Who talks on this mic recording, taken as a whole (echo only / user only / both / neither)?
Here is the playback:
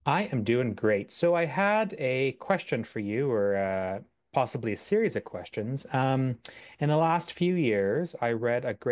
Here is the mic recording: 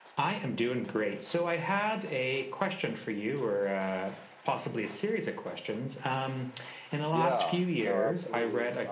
both